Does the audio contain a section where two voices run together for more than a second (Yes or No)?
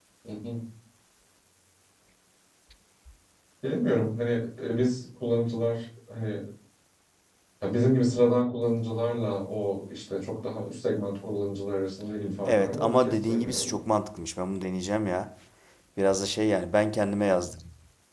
Yes